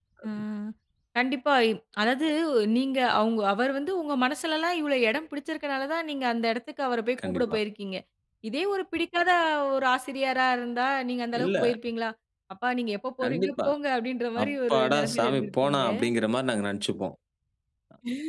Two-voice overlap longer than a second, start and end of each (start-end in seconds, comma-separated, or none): 14.4-15.8